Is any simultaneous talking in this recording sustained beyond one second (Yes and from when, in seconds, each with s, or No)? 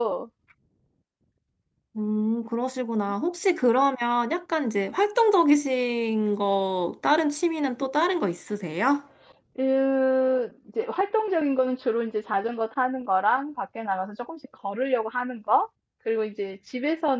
No